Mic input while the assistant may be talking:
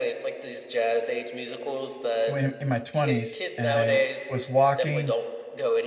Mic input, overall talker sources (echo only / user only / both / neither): both